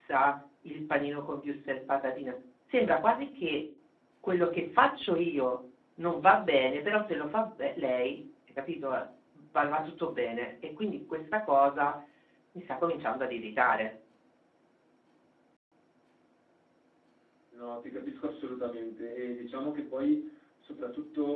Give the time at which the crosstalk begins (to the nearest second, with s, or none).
none